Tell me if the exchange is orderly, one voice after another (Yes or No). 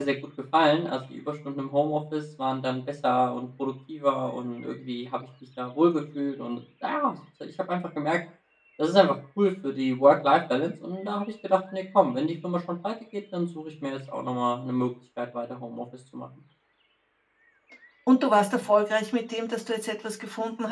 Yes